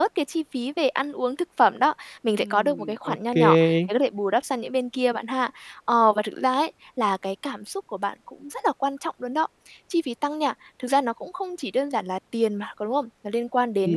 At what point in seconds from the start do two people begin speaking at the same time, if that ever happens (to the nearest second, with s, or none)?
2 s